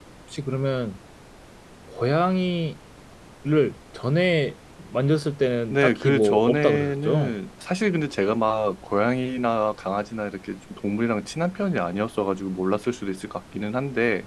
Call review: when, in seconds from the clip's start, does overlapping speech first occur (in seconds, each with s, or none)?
5.7 s